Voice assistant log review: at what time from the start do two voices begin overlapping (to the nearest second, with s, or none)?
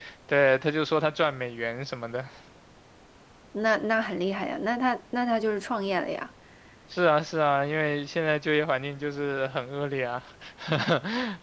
none